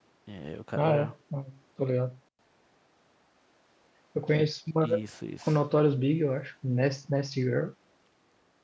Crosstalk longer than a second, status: none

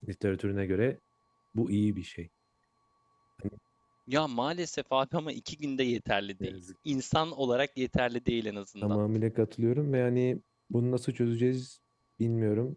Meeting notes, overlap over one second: none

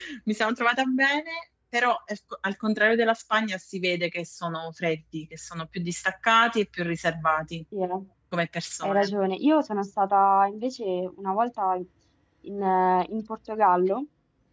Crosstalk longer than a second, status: none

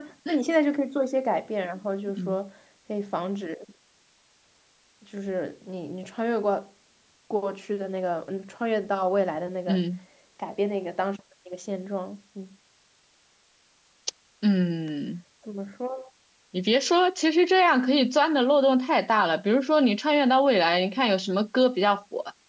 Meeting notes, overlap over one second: none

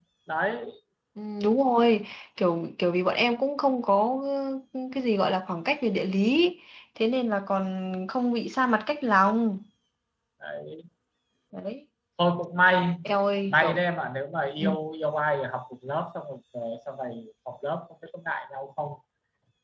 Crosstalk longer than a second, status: none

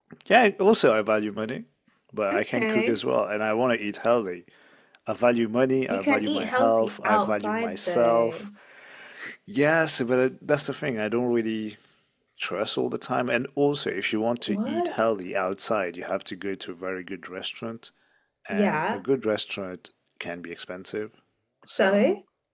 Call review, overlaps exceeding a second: present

